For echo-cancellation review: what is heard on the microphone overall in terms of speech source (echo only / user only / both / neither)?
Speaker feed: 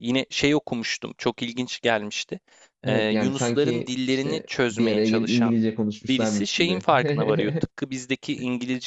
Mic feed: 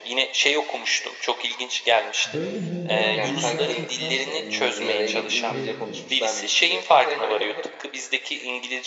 both